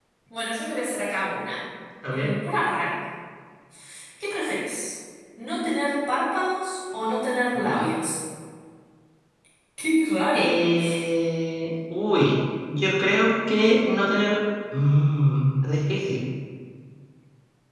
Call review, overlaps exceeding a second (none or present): none